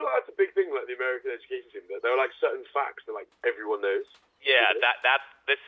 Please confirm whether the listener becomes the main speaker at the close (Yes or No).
Yes